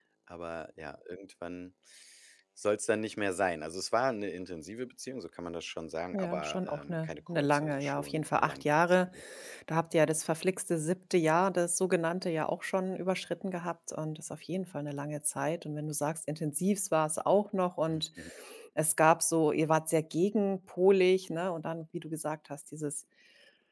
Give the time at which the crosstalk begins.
6.1 s

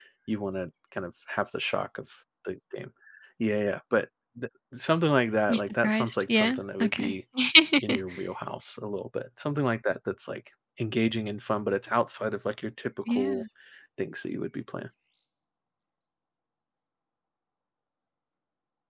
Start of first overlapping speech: 5.5 s

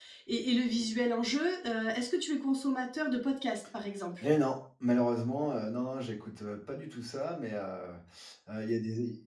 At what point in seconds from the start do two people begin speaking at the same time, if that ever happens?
none

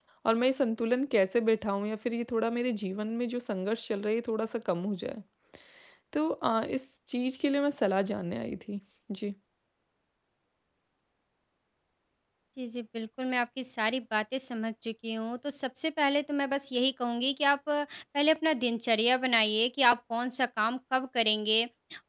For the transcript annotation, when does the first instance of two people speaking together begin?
none

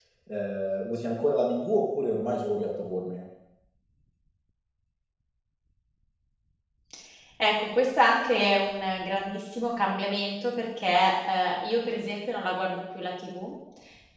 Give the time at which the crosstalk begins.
none

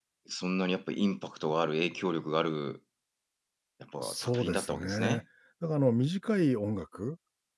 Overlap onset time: 4.0 s

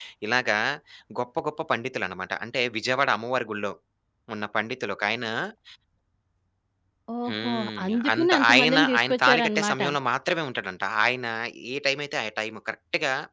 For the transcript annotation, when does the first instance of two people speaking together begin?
7.3 s

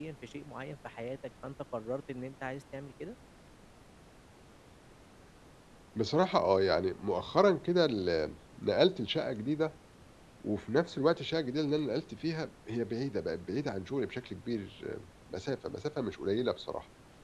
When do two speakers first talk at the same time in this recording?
none

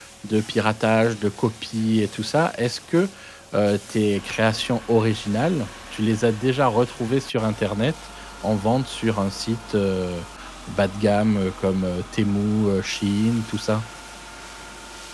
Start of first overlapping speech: none

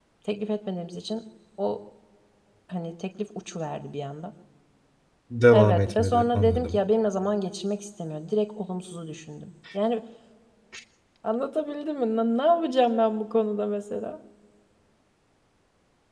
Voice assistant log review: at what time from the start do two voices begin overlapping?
5.5 s

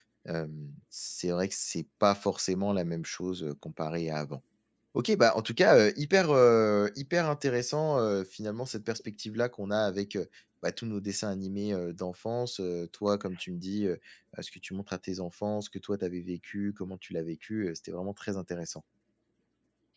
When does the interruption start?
none

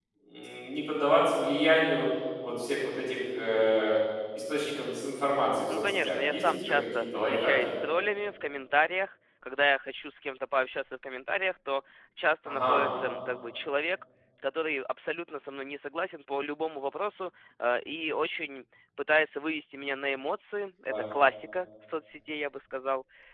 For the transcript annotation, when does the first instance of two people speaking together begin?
5.7 s

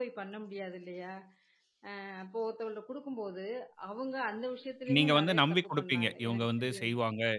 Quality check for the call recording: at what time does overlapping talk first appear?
4.9 s

